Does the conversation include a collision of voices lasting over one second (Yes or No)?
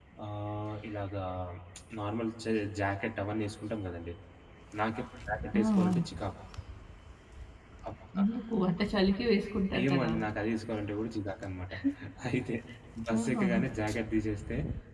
No